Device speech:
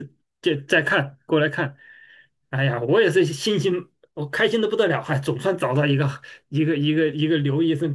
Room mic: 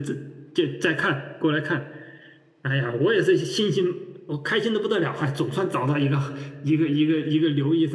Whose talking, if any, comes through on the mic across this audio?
echo only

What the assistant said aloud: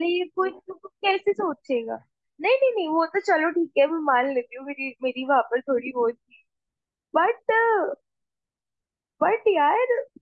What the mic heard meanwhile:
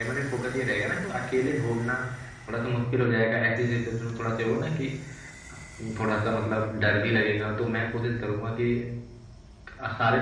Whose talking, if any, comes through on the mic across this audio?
user only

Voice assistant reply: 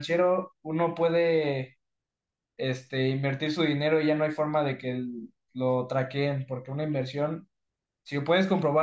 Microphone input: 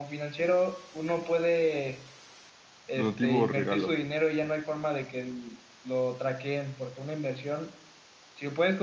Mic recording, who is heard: both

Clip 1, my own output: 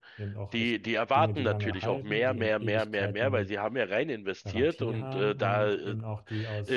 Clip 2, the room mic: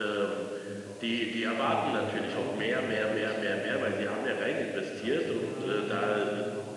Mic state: echo only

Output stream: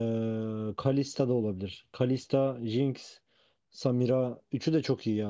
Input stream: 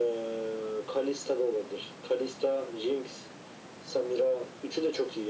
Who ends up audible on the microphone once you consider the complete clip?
echo only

